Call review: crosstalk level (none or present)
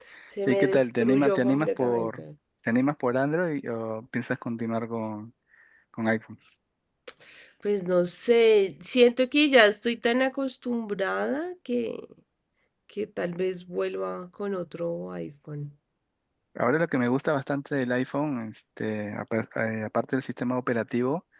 present